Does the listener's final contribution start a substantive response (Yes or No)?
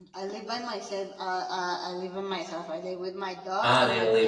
Yes